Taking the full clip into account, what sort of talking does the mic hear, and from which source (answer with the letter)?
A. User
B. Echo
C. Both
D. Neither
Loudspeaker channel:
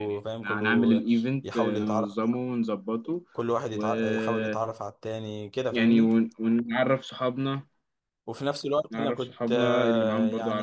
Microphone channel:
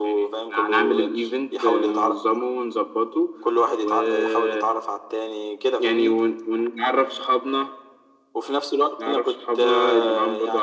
B